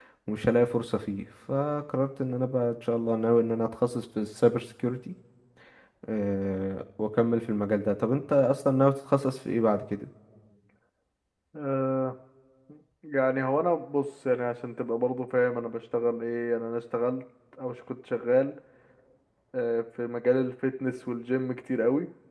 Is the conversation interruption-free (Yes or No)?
Yes